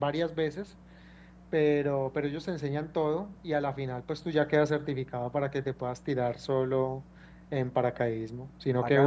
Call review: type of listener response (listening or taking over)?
taking over